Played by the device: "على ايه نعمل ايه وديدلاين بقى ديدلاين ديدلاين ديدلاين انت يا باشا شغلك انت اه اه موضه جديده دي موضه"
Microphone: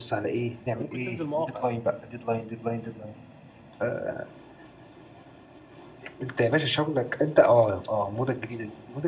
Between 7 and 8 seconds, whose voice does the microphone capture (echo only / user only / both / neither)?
echo only